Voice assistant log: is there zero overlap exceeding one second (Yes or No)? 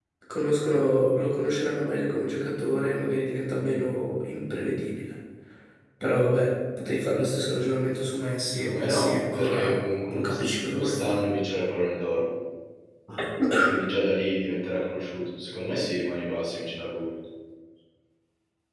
No